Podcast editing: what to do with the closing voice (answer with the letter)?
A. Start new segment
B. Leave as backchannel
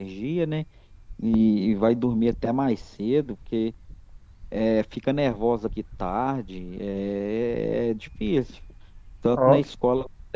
B